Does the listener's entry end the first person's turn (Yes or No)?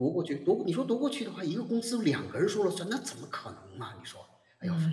Yes